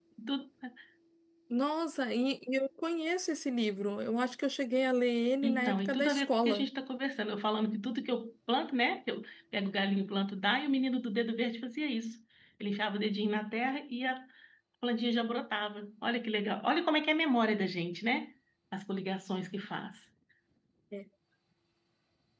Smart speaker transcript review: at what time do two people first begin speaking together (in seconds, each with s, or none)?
5.4 s